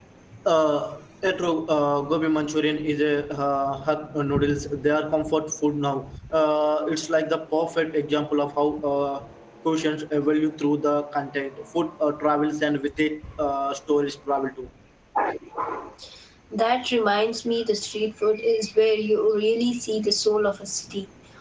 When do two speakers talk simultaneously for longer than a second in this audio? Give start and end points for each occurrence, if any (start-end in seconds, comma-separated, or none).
none